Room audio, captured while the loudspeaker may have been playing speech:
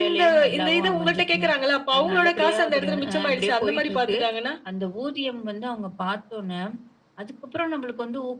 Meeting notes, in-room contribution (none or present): none